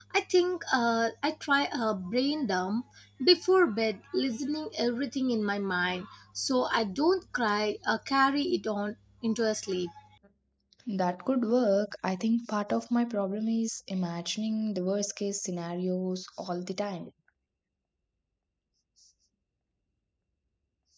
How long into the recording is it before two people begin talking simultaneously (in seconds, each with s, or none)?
none